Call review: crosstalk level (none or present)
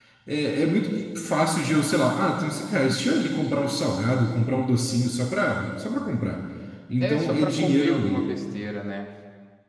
present